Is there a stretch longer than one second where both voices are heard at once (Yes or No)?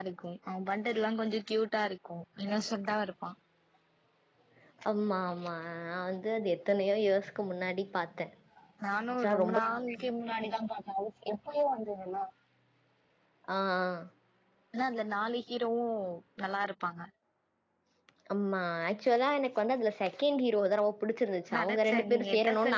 Yes